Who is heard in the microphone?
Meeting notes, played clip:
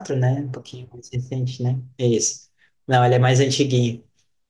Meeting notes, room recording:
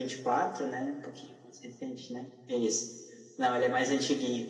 echo only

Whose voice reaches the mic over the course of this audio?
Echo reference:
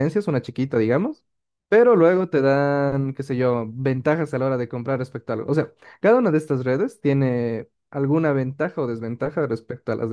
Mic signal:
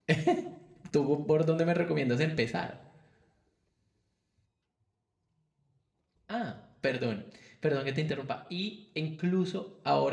user only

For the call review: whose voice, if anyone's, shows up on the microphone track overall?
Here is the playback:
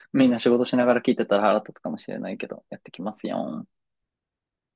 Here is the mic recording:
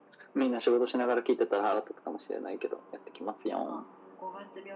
both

